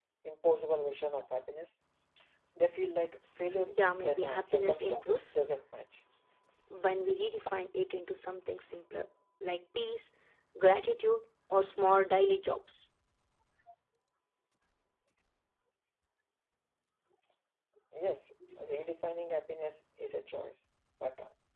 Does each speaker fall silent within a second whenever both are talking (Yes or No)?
No